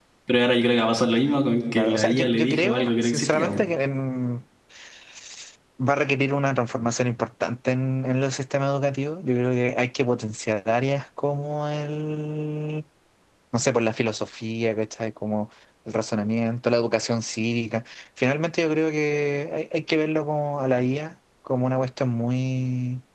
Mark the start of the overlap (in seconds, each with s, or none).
1.8 s